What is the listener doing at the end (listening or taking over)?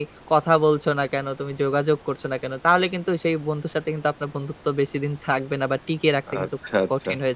taking over